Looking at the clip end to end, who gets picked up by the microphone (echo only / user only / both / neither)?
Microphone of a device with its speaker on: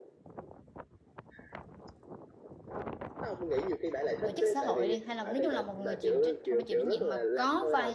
both